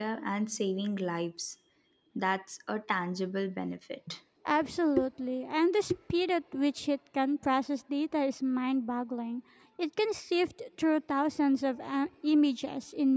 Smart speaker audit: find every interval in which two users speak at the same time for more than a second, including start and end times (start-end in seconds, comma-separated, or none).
none